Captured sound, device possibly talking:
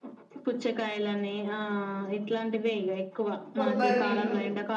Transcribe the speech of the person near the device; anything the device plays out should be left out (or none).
కొబ్బరి నీళ్ళు